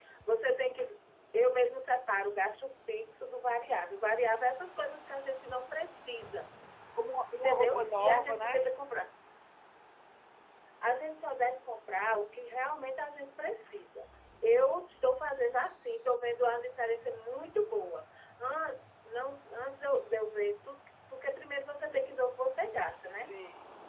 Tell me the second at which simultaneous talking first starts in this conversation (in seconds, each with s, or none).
7.4 s